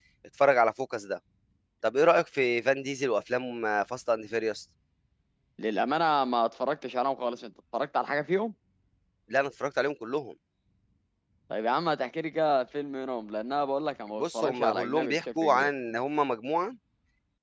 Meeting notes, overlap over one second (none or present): present